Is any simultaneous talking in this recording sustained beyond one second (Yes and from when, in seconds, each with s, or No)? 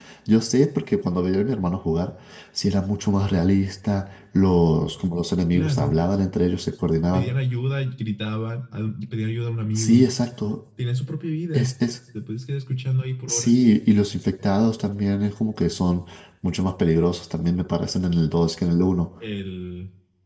No